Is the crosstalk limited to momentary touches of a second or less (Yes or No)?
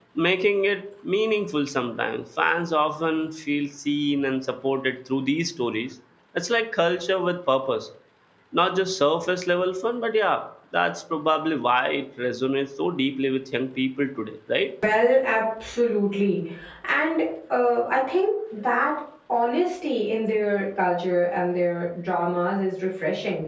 Yes